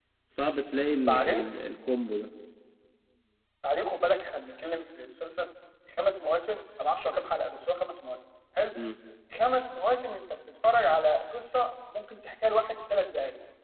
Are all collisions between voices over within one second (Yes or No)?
Yes